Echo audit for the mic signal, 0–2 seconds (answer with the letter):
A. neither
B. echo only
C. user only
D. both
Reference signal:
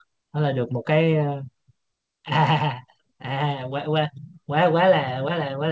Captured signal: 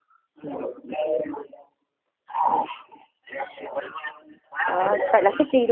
B